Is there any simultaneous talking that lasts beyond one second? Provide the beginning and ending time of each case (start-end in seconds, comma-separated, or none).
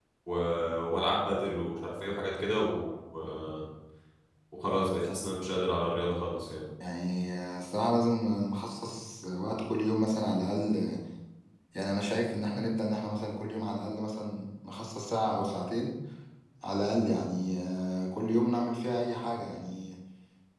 none